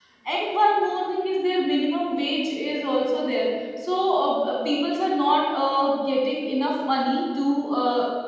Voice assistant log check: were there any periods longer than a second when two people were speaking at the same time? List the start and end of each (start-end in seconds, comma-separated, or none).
none